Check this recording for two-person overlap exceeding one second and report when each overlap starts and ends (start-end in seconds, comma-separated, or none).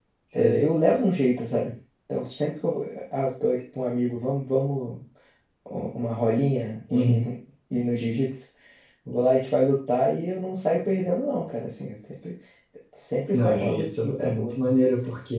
13.3-14.5